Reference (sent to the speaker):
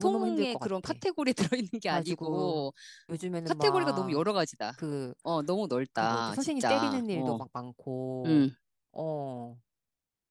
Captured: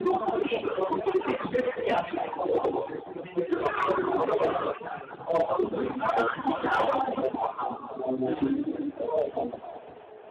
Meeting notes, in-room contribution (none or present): none